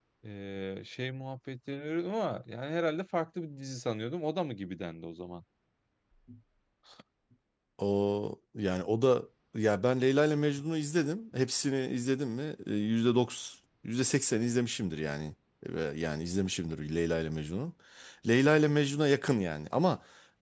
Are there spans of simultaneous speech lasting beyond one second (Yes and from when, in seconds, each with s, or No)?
No